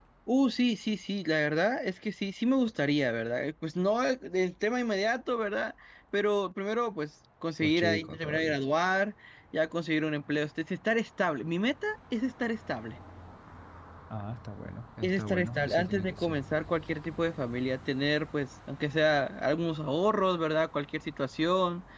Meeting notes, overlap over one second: present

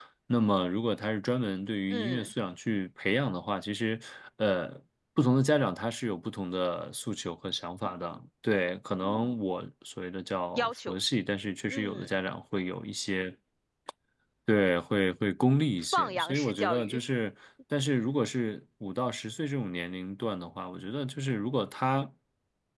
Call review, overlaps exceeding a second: present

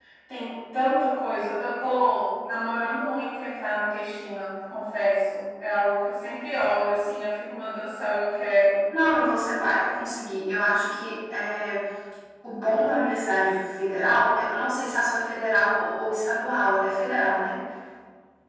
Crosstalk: none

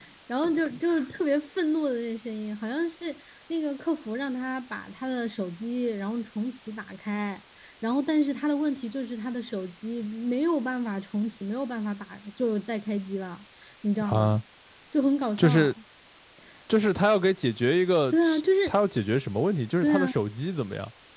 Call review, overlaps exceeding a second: none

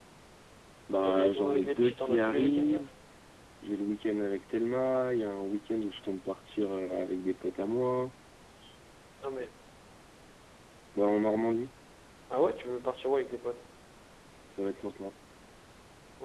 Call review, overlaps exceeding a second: present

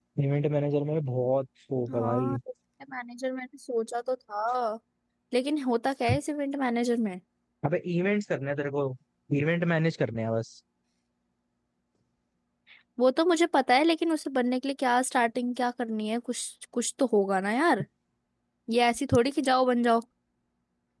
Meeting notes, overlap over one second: none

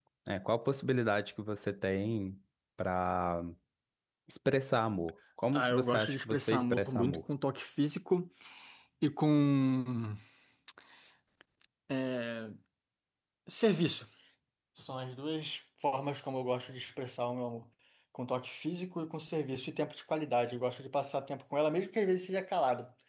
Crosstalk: present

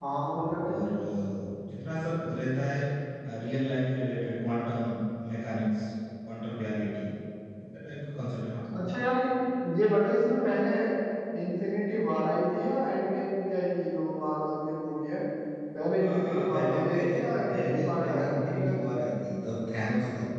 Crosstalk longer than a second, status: present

